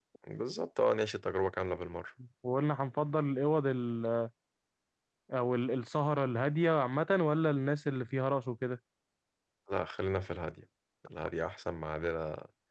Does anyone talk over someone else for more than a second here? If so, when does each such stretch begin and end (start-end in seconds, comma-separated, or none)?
none